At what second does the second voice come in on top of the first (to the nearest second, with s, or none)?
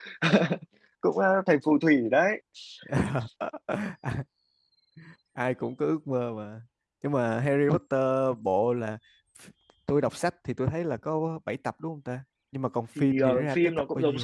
13 s